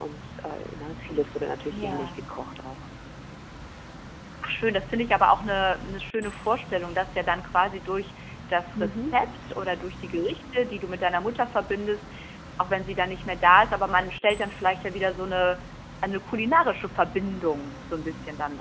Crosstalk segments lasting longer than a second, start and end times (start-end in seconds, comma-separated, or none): none